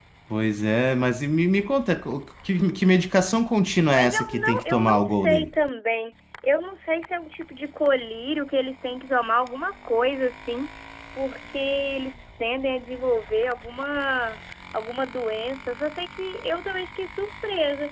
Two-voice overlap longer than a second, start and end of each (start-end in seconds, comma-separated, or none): 3.9-5.5